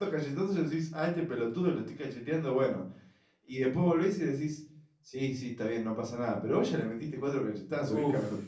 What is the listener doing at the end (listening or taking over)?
taking over